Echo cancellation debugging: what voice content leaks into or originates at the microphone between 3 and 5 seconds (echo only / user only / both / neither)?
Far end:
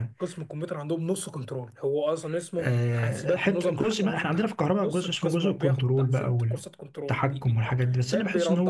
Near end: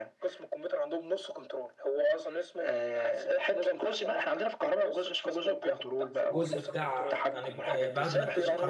echo only